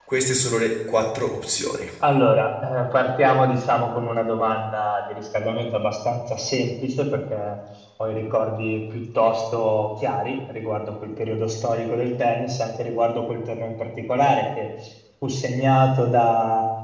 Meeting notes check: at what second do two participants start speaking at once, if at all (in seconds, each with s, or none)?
none